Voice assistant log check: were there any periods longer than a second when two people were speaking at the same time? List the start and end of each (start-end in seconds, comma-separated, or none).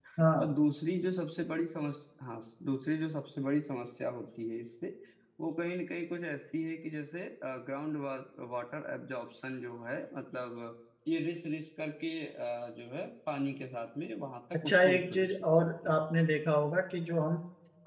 14.7-15.9